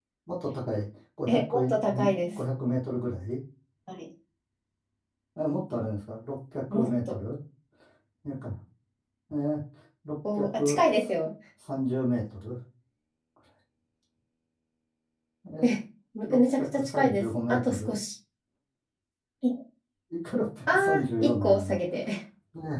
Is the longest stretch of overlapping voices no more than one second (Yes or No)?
No